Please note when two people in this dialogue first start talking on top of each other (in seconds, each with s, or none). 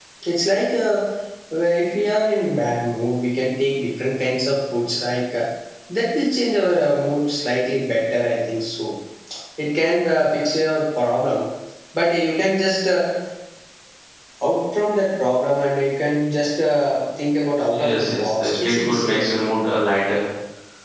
17.7 s